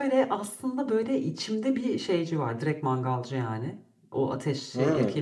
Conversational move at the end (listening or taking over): listening